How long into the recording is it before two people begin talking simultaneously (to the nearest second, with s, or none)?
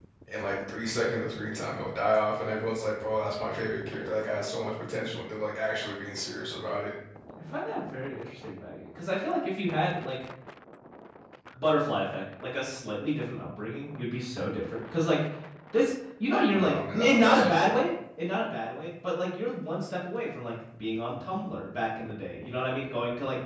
17 s